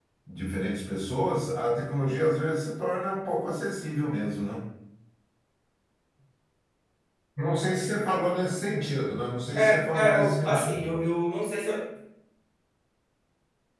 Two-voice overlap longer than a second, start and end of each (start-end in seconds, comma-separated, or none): 9.6-10.8